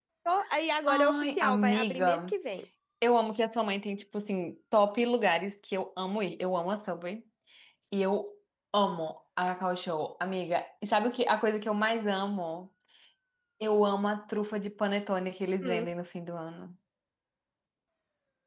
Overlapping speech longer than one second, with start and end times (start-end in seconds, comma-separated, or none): 0.9-2.3